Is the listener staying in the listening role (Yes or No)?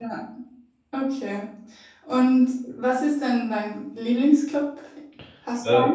No